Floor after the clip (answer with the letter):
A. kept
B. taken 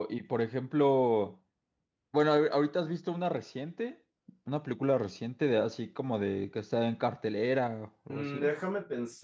B